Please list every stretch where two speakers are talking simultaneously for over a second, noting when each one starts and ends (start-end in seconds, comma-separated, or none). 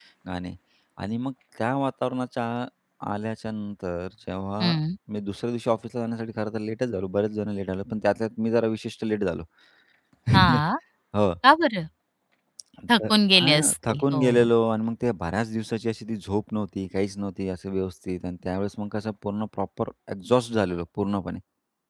13.0-14.5